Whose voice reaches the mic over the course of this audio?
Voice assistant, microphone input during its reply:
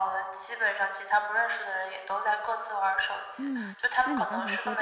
both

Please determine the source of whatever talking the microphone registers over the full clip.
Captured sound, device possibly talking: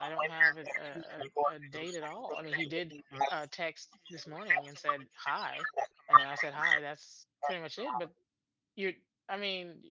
both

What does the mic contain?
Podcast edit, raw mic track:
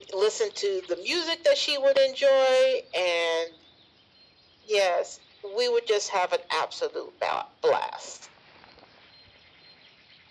echo only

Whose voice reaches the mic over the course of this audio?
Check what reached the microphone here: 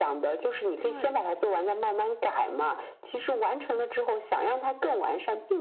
both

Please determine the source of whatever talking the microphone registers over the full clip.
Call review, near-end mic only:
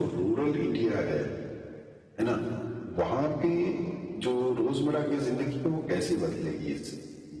echo only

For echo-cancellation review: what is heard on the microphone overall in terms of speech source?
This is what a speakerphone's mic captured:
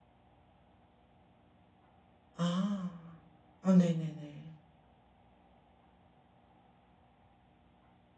user only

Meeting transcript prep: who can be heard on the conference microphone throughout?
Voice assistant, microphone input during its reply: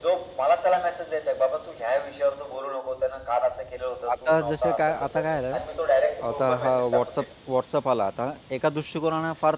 both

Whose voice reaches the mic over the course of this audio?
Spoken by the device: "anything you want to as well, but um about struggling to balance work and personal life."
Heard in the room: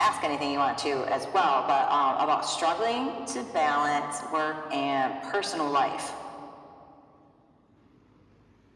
echo only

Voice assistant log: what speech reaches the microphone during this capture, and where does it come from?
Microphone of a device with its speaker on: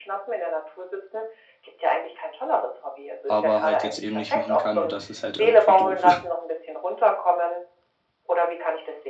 both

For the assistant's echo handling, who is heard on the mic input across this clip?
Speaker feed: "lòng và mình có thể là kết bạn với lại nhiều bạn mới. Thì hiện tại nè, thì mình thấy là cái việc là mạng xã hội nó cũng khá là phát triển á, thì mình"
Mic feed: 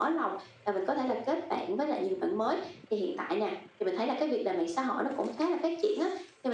echo only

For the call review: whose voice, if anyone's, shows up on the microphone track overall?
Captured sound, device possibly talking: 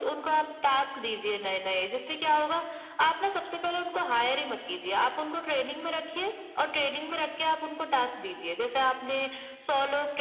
echo only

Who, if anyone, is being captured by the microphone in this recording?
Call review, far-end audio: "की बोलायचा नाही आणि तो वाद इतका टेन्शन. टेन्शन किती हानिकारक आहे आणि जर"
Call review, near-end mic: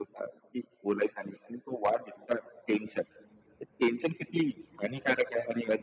echo only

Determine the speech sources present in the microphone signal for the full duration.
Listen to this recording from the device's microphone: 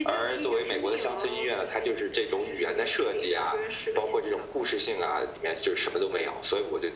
echo only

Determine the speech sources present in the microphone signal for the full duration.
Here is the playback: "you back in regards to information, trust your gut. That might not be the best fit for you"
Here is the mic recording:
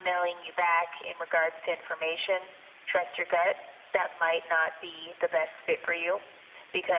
echo only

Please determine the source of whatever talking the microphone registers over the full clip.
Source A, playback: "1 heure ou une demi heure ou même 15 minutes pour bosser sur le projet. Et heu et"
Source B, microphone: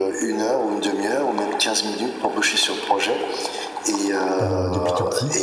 both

